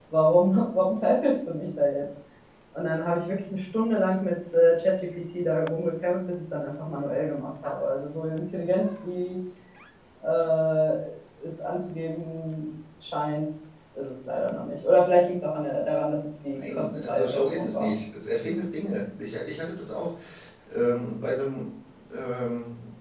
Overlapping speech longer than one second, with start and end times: 16.6-17.9

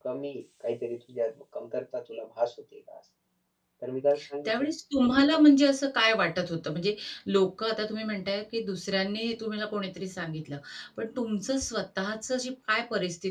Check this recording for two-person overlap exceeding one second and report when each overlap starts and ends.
none

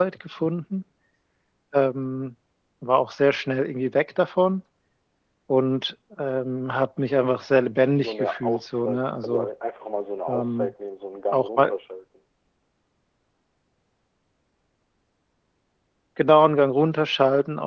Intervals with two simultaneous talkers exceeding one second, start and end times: 8.0-9.5

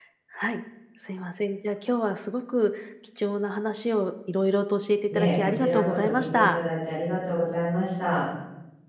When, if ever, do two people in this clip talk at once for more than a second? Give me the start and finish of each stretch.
5.1-6.6

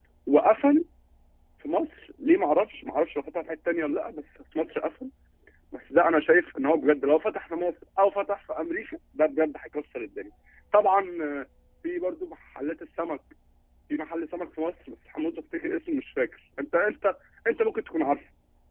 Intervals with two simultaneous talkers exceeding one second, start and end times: none

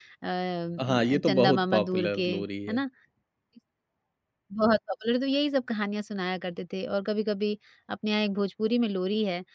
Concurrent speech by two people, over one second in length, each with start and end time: 0.8-2.3

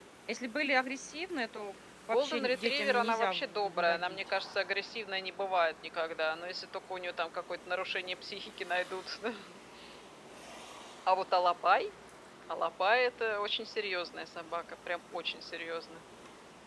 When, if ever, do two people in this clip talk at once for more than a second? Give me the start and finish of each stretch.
2.1-4.2

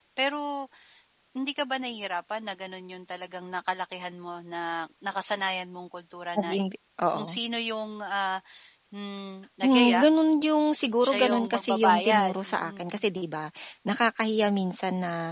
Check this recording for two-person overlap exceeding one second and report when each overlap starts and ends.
11.0-12.9

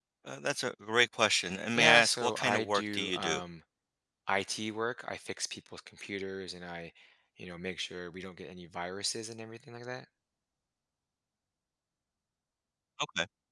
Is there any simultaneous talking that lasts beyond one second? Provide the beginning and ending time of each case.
1.7-3.4

